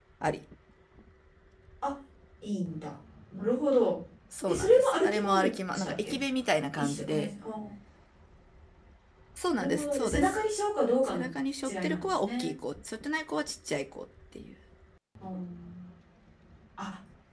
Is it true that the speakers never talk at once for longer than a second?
No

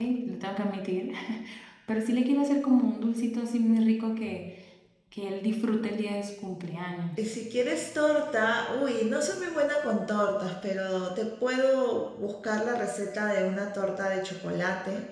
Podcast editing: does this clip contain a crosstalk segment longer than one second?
No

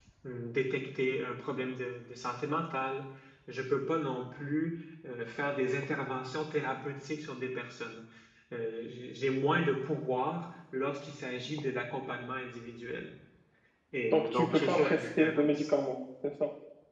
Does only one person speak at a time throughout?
No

